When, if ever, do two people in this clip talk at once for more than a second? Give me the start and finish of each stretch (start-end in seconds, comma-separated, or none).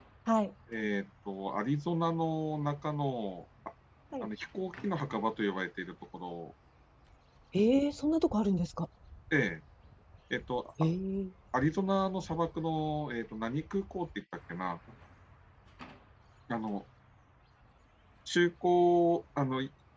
none